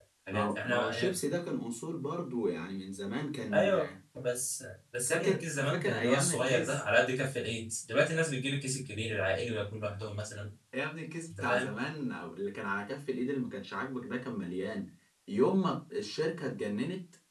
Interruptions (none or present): present